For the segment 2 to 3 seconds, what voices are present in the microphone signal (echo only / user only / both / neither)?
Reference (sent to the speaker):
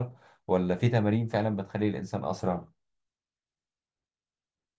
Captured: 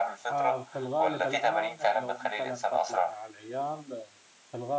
both